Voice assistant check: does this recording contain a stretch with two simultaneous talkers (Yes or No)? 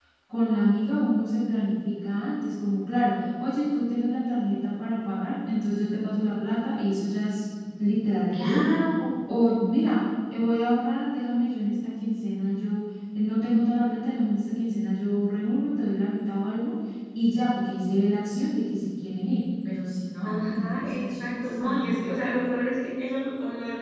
Yes